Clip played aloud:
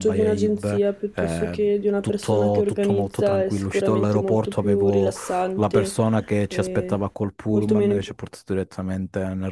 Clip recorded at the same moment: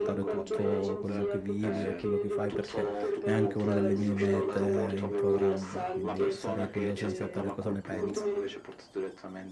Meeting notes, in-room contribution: present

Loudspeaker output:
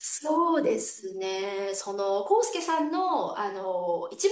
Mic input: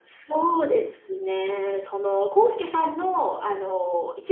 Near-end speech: none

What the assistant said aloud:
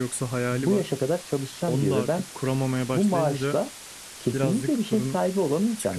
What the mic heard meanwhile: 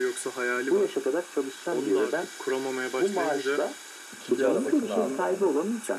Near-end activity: present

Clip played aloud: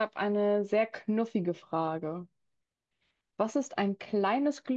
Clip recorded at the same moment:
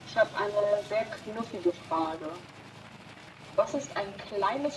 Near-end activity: none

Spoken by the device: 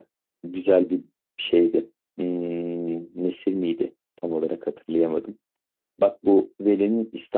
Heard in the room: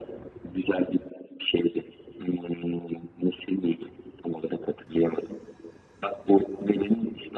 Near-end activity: none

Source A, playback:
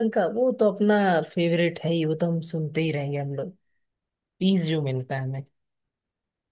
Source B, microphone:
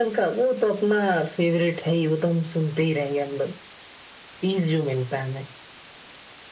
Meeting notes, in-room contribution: none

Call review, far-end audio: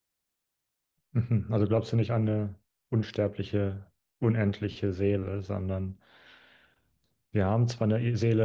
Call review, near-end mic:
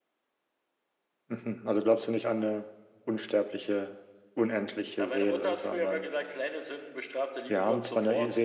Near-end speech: present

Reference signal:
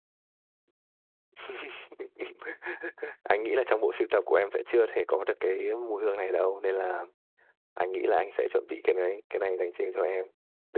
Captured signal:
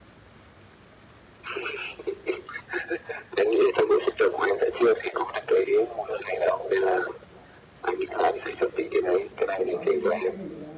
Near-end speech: present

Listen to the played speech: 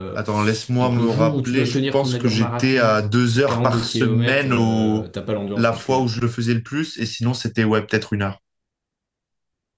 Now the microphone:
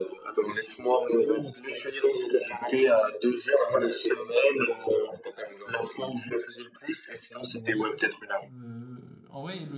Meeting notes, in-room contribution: present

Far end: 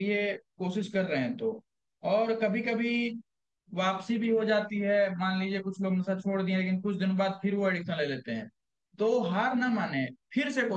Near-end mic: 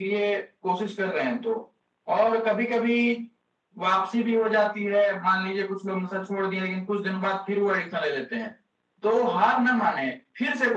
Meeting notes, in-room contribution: none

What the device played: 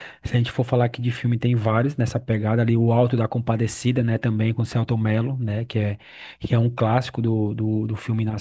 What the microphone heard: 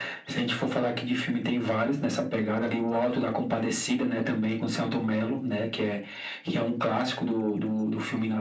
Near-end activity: none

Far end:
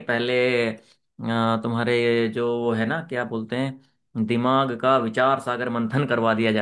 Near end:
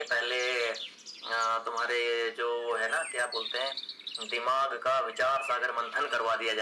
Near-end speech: none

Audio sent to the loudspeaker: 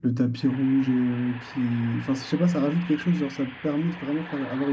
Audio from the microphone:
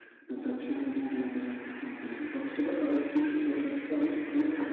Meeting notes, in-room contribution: none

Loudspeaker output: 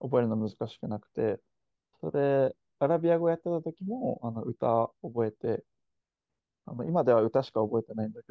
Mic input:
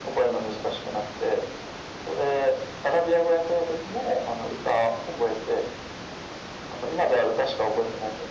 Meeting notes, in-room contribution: none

